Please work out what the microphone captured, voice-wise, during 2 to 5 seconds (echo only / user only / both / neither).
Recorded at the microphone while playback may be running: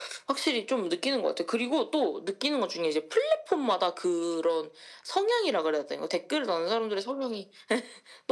echo only